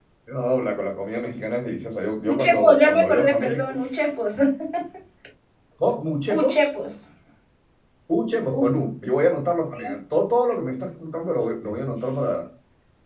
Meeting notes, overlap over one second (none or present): present